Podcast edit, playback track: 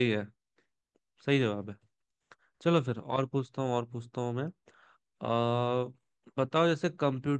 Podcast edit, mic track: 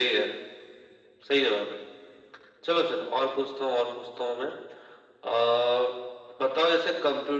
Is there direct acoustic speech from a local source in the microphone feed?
No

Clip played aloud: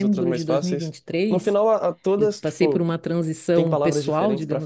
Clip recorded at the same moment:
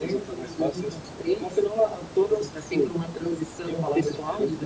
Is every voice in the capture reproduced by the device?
Yes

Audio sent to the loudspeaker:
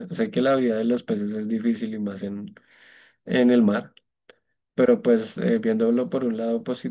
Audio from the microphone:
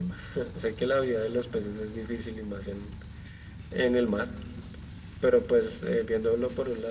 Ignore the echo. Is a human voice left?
No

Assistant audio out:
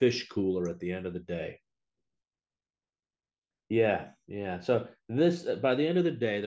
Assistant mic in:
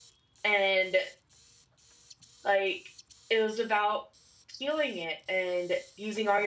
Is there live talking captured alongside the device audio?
Yes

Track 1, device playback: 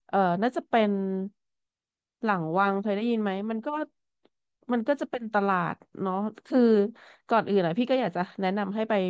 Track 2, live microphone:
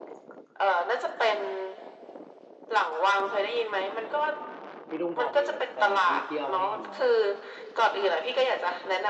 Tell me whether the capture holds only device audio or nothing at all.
No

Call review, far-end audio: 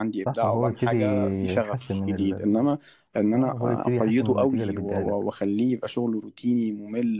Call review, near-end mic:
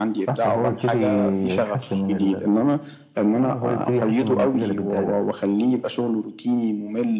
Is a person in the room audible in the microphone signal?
No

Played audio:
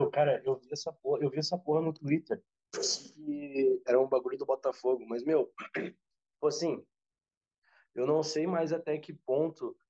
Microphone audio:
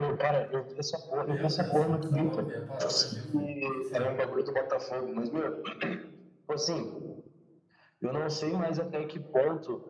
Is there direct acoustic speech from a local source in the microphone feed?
Yes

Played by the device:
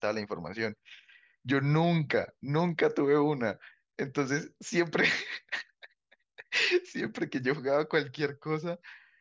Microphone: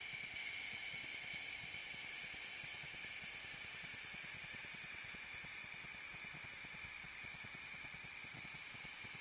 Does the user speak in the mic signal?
No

